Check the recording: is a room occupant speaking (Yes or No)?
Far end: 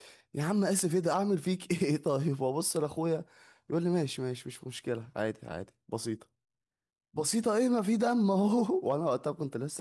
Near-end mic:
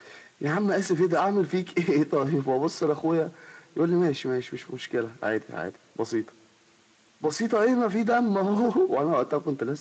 No